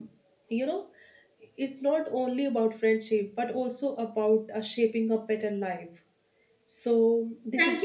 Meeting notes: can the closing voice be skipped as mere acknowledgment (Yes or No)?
No